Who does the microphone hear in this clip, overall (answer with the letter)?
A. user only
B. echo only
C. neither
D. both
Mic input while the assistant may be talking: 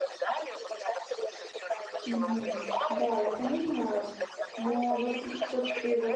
D